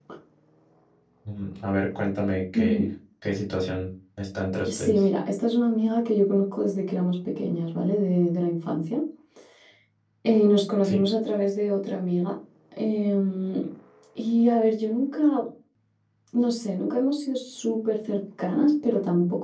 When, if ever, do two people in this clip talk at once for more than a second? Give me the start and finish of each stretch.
none

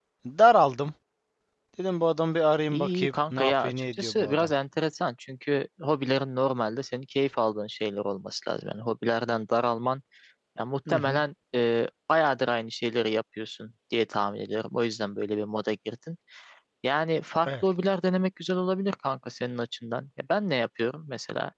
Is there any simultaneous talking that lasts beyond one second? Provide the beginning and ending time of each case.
2.7-4.5

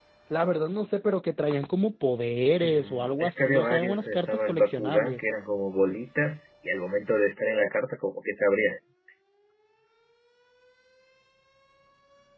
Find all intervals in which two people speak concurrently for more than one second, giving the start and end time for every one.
2.6-5.3

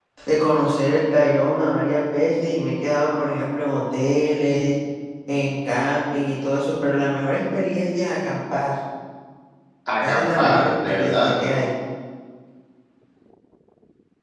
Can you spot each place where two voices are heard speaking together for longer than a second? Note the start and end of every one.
10.0-11.3

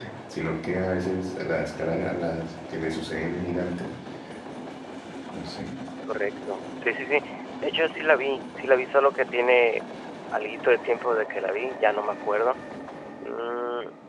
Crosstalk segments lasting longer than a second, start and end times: none

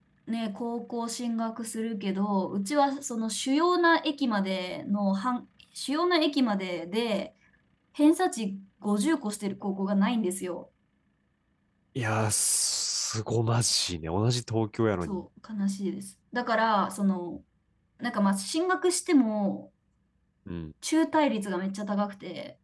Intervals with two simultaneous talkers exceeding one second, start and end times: none

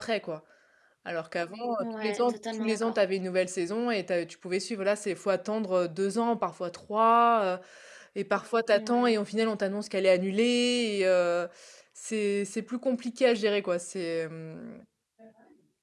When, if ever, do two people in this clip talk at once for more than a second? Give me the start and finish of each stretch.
1.8-3.0

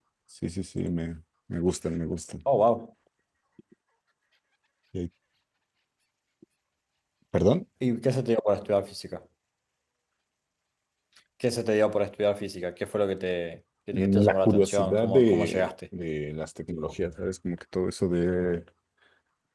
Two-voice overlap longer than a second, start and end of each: 13.9-15.7

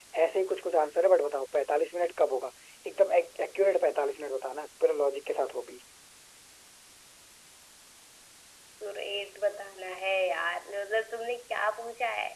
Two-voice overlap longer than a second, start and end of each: none

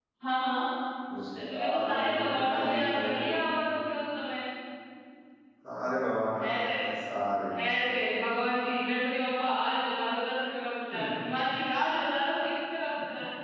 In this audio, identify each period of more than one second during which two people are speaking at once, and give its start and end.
1.5-3.2

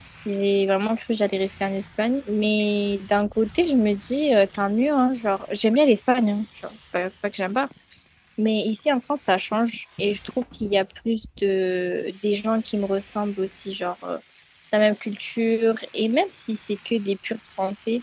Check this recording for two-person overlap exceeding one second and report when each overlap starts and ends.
none

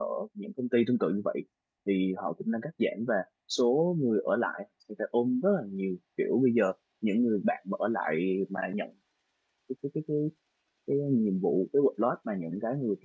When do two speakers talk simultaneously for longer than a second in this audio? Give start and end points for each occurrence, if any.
none

